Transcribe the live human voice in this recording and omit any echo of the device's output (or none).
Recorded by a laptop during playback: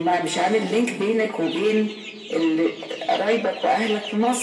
none